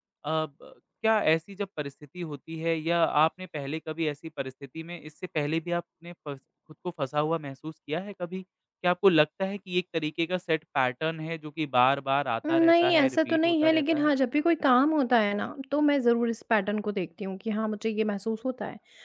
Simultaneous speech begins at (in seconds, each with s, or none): 12.4 s